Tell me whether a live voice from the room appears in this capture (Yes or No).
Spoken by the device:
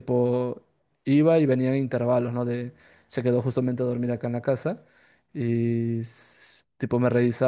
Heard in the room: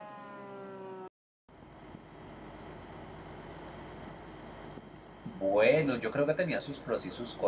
Yes